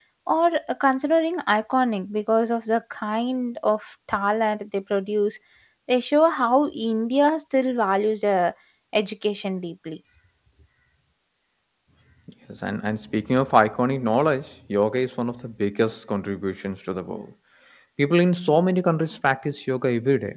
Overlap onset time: none

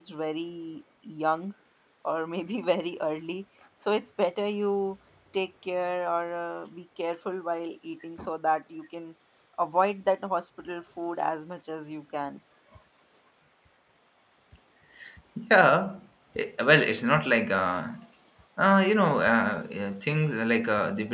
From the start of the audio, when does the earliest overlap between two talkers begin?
none

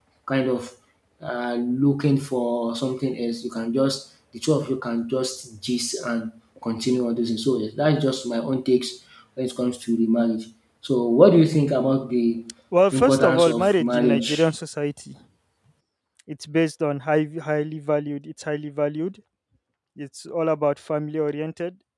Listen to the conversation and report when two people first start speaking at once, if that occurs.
13 s

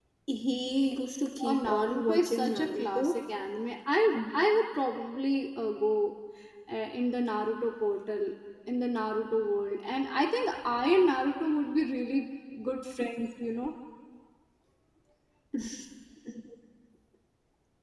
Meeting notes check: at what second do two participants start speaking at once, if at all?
1 s

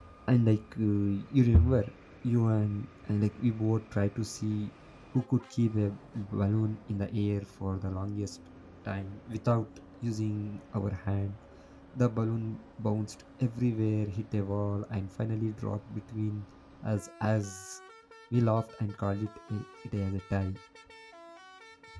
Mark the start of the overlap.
none

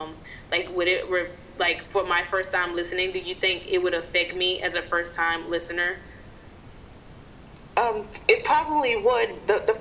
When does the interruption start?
none

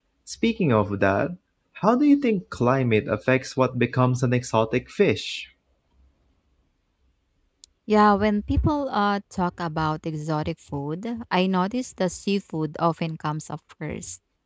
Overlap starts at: none

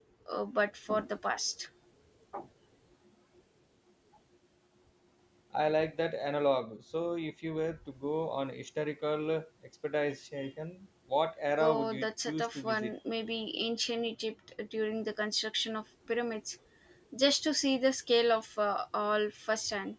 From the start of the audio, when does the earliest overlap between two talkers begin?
12 s

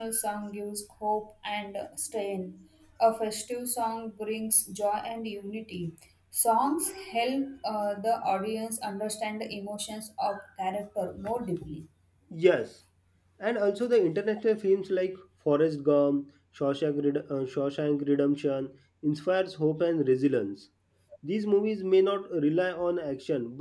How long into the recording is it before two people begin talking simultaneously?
none

